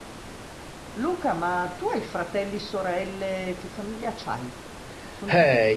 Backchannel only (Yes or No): No